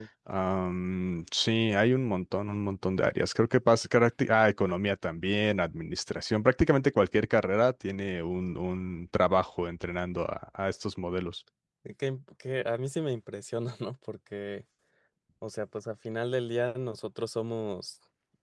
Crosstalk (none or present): none